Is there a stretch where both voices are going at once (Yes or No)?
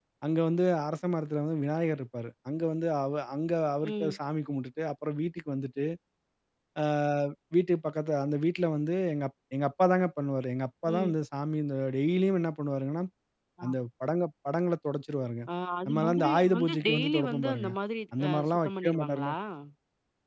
Yes